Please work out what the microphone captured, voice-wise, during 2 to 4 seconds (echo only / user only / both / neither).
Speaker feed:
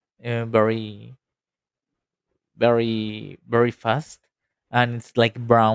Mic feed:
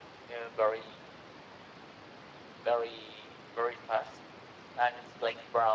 echo only